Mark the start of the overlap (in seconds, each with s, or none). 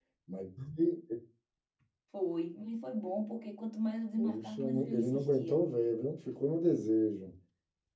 4.2 s